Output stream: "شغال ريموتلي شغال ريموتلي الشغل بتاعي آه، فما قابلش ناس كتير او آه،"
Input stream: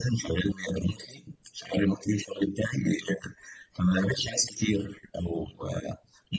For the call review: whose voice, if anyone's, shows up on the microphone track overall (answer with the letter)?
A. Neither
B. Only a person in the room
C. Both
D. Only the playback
D